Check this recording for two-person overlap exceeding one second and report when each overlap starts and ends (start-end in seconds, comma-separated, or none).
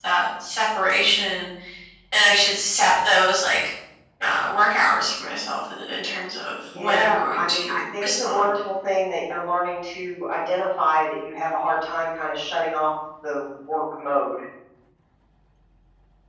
6.7-8.6